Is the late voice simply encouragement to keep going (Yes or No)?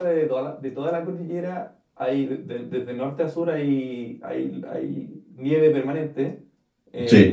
Yes